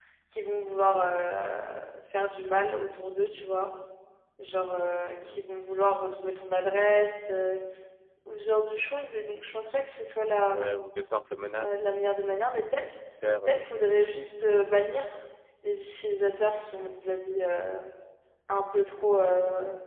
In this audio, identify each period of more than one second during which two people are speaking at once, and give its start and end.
none

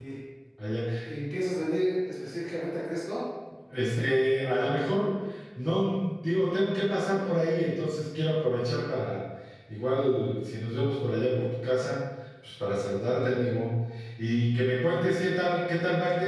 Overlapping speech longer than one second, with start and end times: none

